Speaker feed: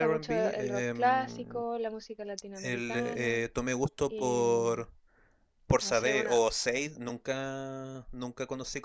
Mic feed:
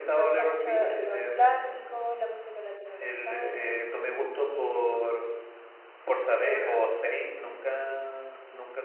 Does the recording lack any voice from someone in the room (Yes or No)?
Yes